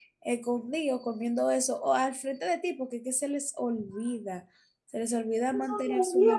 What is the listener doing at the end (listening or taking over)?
taking over